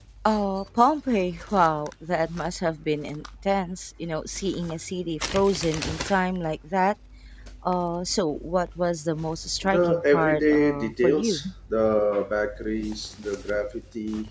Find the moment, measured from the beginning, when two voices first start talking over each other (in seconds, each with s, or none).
9.6 s